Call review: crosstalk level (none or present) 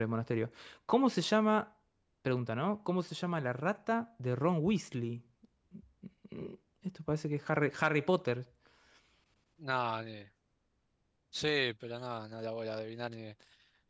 none